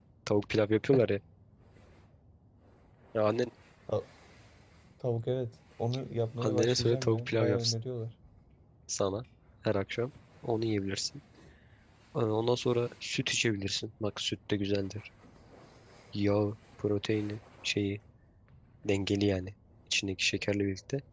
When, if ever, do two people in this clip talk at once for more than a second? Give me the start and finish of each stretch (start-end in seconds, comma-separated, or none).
6.4-7.7